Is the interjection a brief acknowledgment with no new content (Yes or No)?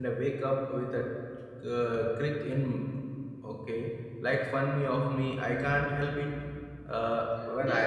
No